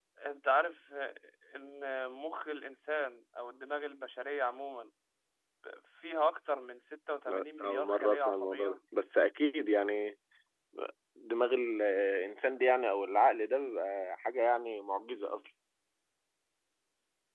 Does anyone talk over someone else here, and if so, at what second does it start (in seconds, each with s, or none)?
7.3 s